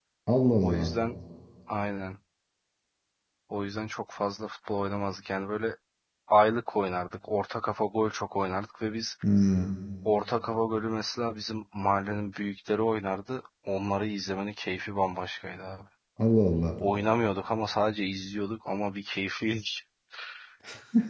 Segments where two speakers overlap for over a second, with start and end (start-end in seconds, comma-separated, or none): none